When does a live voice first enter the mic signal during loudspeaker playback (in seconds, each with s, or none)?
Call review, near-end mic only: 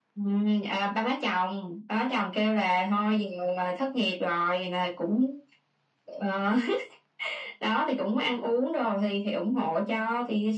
none